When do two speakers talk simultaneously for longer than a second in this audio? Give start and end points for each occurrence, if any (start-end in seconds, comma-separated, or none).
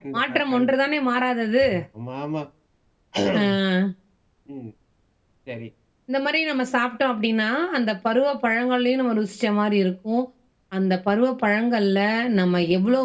none